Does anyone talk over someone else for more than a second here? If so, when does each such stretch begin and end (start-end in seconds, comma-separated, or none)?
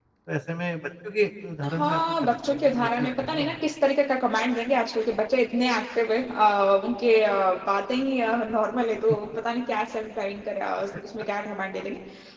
1.6-3.5